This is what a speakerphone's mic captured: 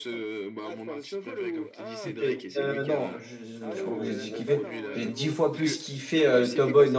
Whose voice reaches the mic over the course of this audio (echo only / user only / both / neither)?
both